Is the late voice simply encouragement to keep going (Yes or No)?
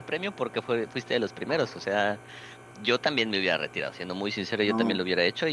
Yes